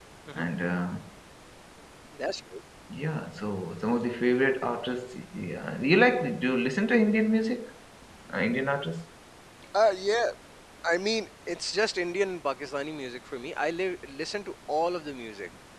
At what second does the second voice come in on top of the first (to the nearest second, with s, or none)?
none